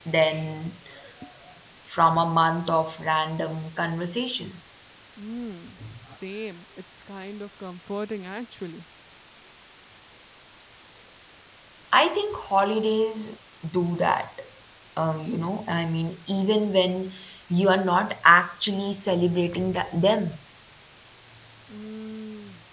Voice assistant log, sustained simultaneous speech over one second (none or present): none